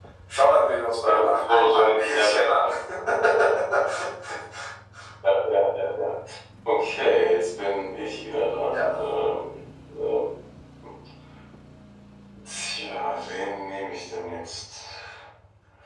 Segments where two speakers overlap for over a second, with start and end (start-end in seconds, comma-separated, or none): 1.0-2.7